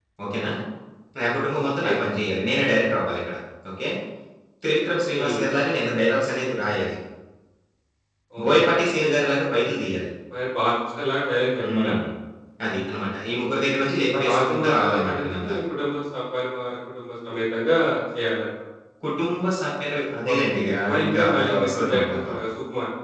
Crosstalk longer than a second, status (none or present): present